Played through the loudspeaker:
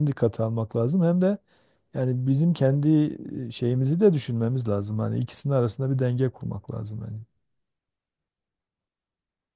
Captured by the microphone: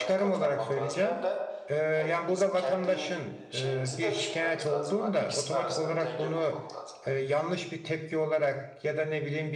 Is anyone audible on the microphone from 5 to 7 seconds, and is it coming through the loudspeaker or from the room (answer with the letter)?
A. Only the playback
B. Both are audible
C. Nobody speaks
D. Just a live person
B